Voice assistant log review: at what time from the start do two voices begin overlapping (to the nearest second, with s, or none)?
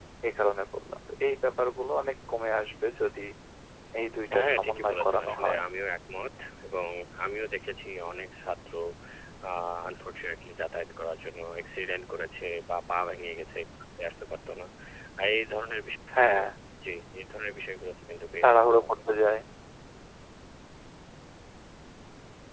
4 s